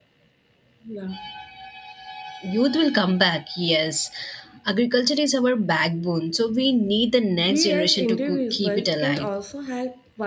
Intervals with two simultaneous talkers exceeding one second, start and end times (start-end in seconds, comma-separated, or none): 7.4-9.3